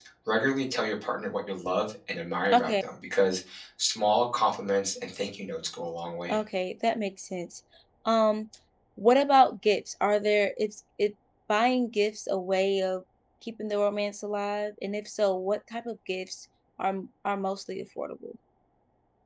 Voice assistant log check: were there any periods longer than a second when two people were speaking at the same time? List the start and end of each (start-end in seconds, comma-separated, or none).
none